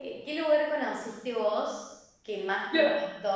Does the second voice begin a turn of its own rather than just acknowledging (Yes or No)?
No